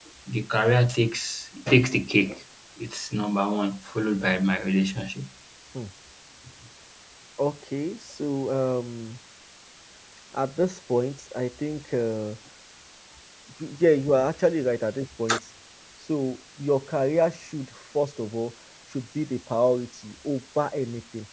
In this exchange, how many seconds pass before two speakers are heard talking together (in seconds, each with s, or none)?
none